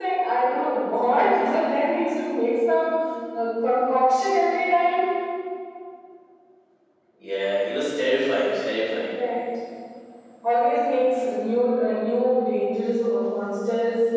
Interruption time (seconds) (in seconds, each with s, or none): none